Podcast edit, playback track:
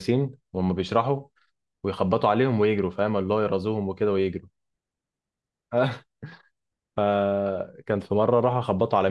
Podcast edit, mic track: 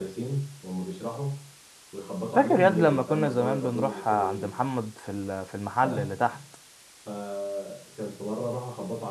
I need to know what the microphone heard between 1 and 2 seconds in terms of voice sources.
echo only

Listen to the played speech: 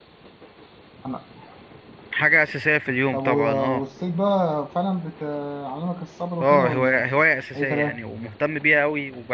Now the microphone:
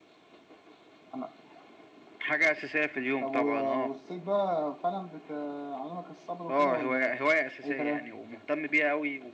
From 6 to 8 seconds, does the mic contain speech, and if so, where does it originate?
echo only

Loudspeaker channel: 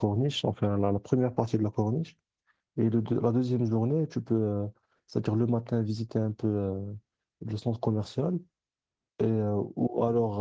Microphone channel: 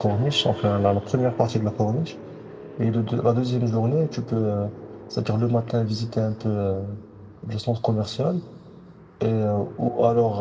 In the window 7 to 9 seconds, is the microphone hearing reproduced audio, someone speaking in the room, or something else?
echo only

